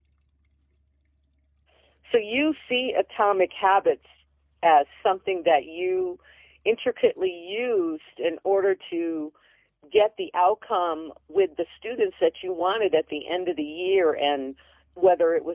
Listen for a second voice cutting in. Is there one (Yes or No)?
No